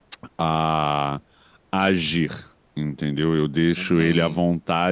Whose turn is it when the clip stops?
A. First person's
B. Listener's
A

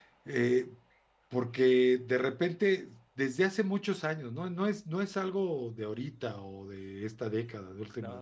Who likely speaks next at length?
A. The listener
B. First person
B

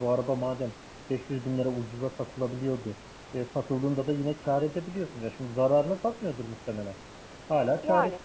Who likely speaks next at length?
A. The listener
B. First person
B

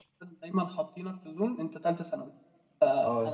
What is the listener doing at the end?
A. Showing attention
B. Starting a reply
B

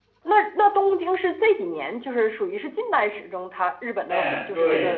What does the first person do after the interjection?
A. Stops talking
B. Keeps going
A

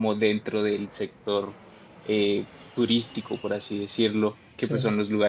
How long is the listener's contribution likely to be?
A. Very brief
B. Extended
A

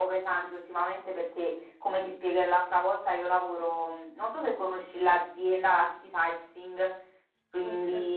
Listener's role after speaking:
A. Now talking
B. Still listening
A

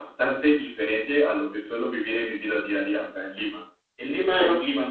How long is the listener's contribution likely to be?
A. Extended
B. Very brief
B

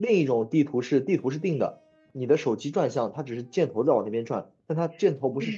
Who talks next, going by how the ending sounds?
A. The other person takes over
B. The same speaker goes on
A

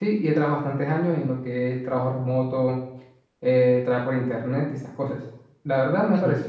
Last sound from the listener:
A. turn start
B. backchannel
B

